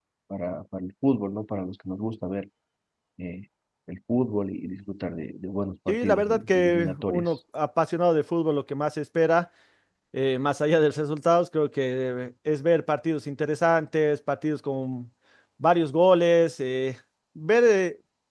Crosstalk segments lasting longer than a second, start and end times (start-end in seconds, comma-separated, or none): 5.9-7.3